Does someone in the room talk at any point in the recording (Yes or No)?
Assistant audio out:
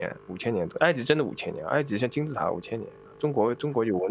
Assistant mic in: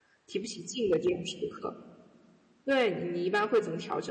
Yes